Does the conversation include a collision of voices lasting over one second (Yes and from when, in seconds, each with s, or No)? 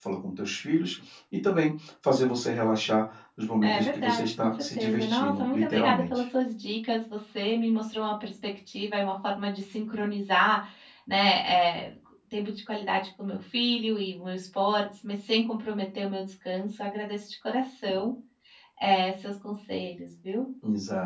Yes, from 3.6 s